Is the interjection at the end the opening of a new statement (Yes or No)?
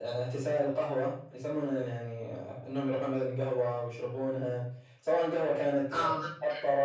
No